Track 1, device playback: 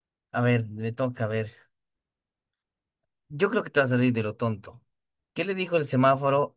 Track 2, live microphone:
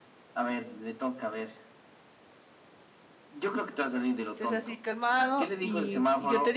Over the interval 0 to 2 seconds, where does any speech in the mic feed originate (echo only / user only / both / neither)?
echo only